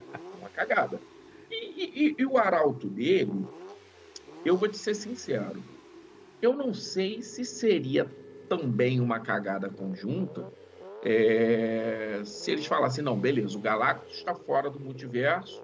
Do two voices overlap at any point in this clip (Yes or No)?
No